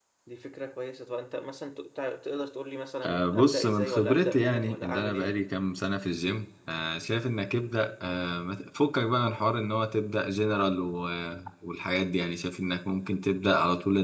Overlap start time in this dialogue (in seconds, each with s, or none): 3.0 s